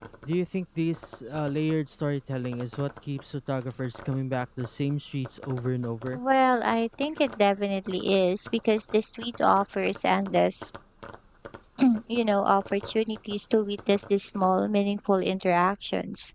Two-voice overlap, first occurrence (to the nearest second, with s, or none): none